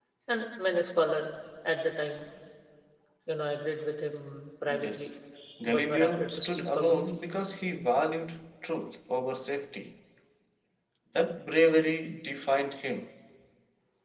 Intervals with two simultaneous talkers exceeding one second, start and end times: 5.6-7.0

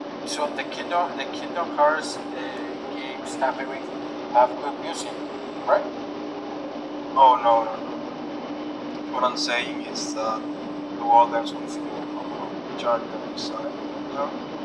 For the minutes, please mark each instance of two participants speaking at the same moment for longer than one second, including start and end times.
none

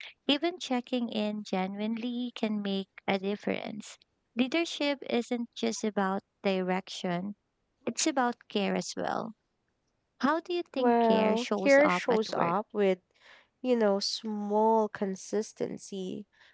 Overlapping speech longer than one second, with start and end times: 10.8-12.5

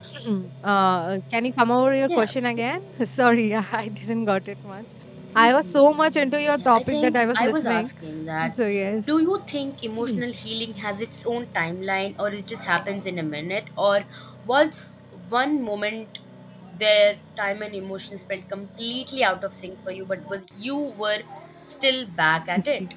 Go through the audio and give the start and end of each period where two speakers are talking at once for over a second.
6.5-7.9

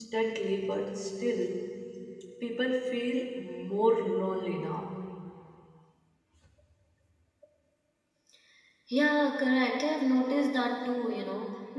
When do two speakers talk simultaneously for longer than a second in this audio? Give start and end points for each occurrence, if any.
none

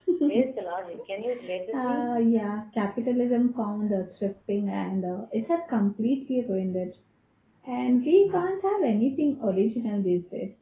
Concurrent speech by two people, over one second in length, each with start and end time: none

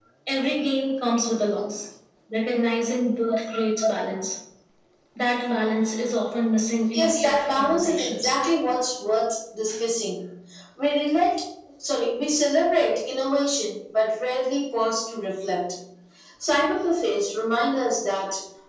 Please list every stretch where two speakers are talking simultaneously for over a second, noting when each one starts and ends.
6.9-8.3

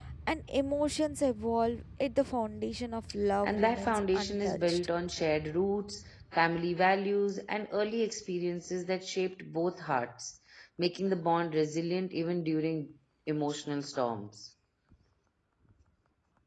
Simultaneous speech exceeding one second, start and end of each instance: 3.4-4.9

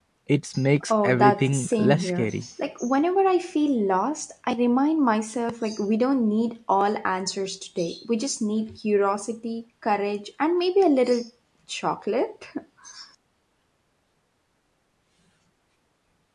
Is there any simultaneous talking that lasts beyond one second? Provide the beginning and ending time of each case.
1.0-2.3

